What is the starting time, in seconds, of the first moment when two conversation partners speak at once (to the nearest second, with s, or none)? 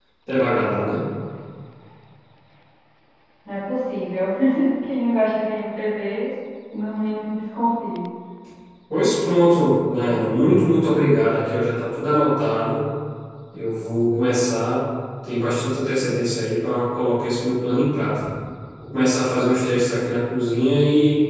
none